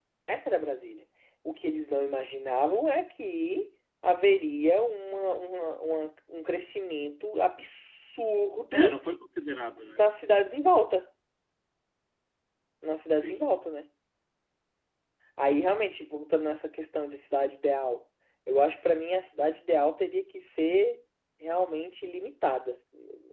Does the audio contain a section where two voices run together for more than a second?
No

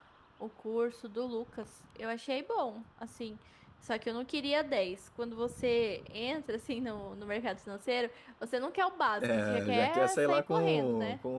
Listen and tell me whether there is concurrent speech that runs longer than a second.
Yes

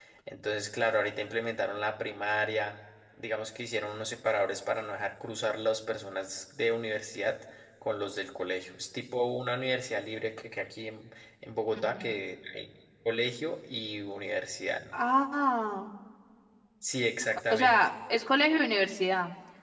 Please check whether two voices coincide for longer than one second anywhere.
No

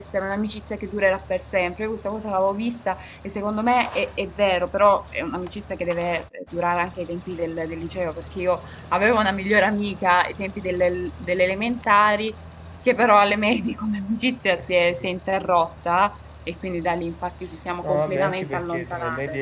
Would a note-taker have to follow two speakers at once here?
Yes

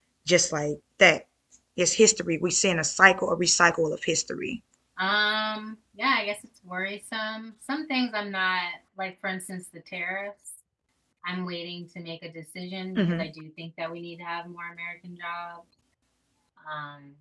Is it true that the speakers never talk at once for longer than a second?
Yes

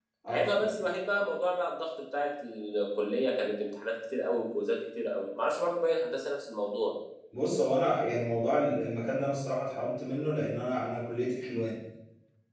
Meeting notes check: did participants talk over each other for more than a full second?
No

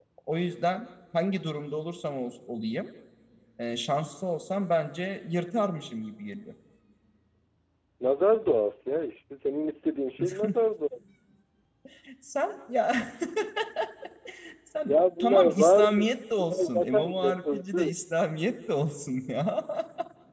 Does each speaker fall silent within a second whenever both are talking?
No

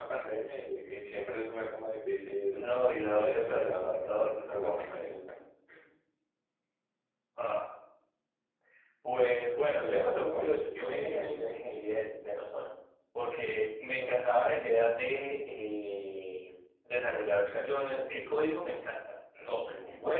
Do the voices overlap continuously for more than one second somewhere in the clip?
Yes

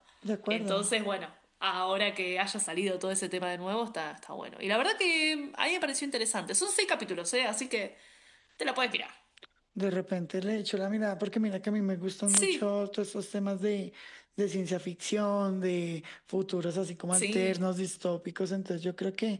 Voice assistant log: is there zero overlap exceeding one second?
Yes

